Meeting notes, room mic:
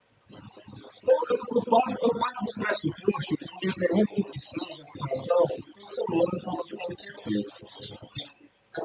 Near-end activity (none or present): none